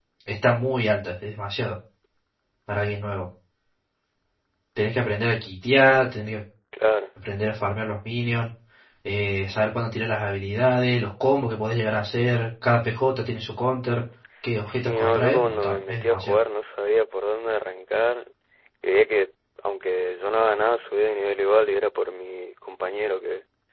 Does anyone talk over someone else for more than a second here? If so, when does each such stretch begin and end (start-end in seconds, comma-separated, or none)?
14.7-16.4